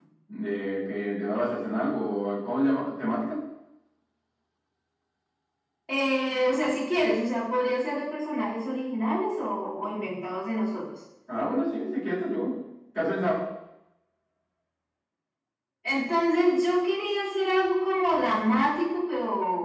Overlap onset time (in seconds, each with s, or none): none